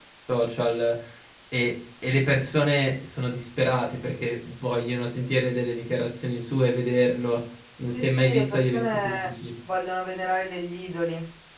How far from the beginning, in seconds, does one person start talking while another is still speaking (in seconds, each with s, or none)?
7.9 s